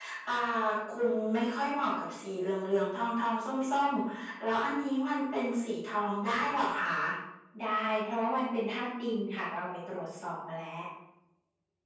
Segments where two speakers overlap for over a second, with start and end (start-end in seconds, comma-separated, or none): none